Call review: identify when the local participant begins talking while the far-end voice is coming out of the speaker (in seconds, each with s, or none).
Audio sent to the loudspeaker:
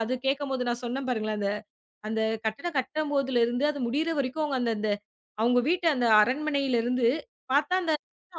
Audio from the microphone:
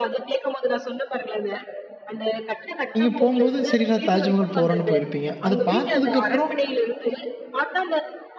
3.0 s